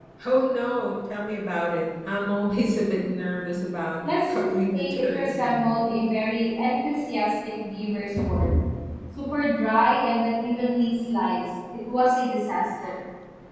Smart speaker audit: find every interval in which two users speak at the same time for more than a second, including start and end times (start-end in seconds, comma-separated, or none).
4.3-5.7